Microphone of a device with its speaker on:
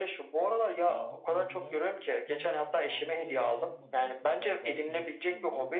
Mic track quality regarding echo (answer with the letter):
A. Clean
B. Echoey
B